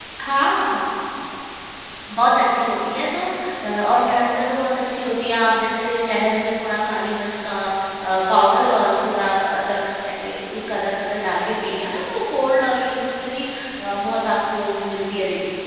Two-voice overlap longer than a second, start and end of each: none

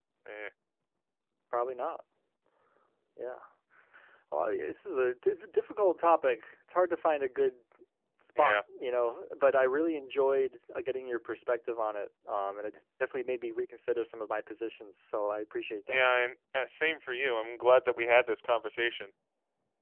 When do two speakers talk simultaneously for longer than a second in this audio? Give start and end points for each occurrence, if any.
none

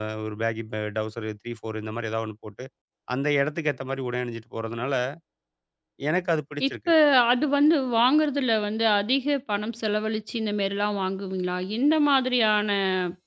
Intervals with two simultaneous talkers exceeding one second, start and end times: none

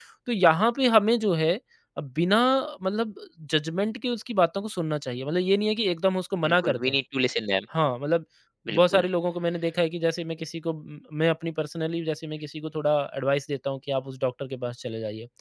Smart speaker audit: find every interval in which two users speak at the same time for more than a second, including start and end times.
none

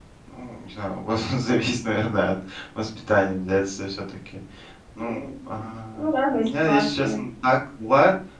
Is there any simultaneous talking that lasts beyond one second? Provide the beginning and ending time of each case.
6.0-7.2

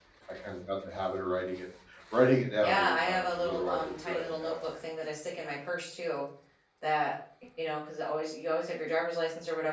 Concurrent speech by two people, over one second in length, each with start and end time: 2.6-4.5

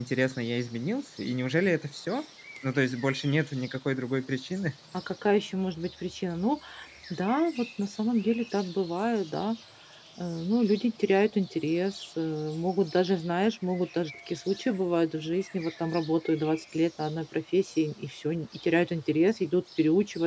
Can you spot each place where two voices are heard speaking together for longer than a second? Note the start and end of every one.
none

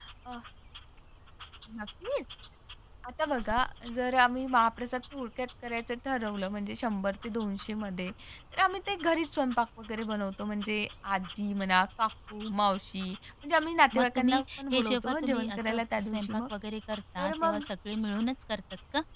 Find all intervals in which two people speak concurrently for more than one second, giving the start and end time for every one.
13.9-16.4

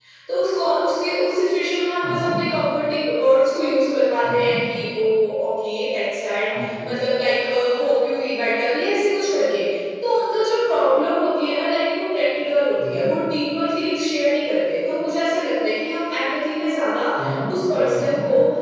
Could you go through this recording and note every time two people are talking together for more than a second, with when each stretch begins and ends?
none

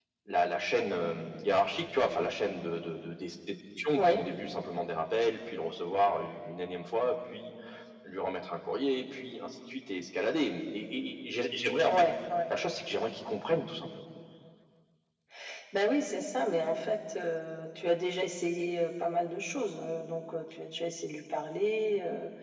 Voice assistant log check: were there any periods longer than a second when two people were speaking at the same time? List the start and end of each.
none

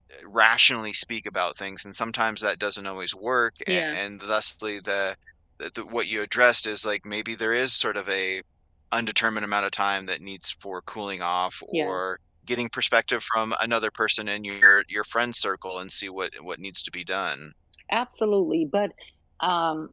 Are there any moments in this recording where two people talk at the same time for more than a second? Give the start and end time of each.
none

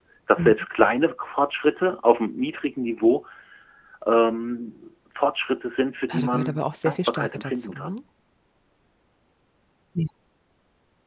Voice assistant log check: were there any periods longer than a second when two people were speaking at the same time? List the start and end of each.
6.1-8.0

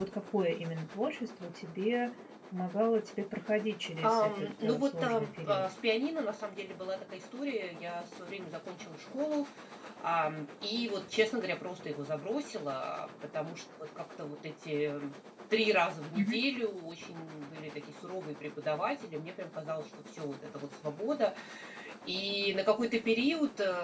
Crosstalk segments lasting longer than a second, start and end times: 4.0-5.7

